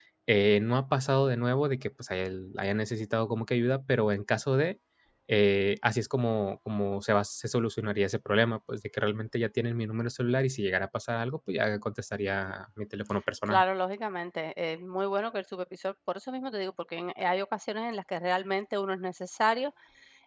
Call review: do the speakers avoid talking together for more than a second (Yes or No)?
Yes